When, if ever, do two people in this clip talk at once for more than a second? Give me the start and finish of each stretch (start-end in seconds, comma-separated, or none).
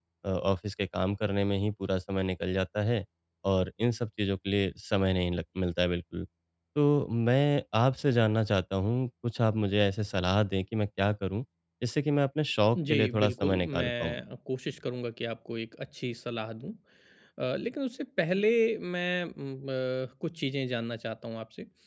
12.9-14.2